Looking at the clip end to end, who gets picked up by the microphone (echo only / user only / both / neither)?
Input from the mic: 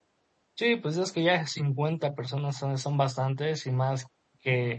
user only